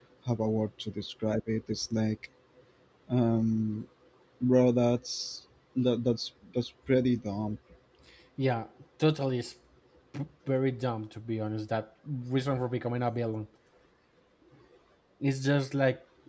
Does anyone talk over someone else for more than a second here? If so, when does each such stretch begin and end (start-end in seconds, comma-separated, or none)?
none